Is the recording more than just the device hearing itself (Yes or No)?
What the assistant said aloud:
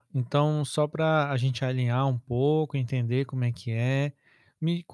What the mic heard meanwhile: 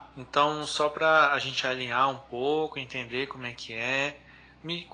No